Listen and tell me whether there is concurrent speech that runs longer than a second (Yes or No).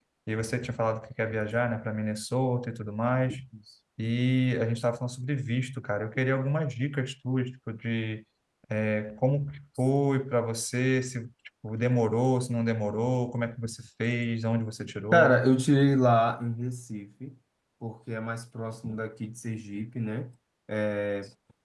No